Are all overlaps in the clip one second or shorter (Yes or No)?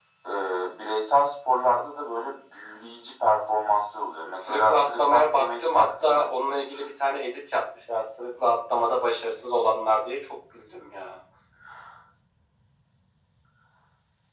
No